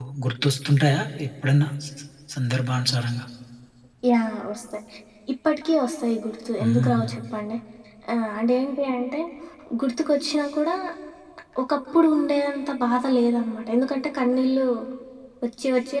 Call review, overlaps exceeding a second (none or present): none